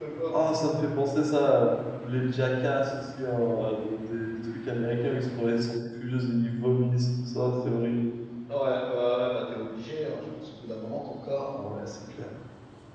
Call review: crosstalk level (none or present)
none